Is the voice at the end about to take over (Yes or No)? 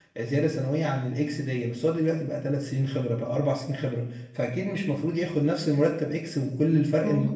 Yes